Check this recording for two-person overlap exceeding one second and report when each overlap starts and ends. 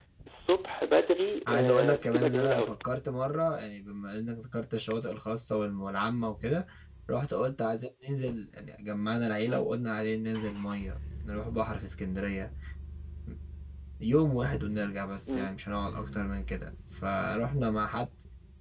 1.5-2.7

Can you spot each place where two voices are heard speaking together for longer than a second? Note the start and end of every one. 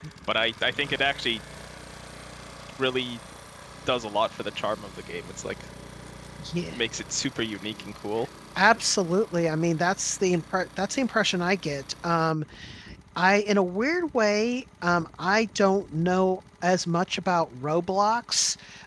none

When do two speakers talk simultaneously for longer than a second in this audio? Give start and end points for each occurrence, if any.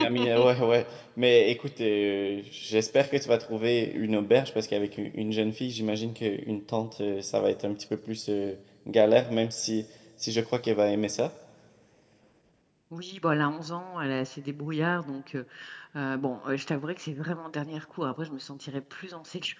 none

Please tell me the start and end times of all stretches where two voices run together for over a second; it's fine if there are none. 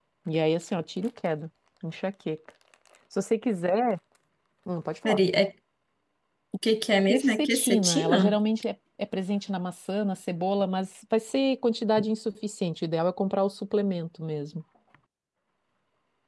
7.1-8.4

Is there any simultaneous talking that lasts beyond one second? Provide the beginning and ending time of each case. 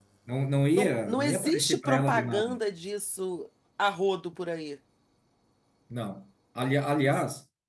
0.8-2.6

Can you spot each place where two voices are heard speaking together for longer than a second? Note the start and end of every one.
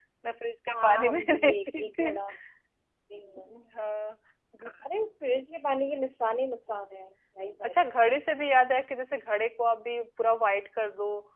0.7-2.1

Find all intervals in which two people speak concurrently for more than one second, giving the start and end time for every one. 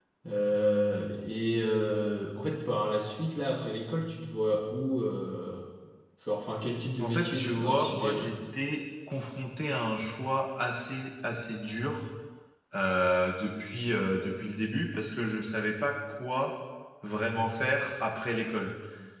7.0-8.3

